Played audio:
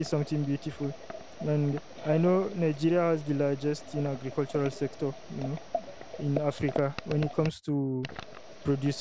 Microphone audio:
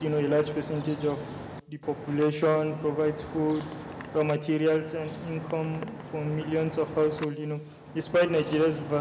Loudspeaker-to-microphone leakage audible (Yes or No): No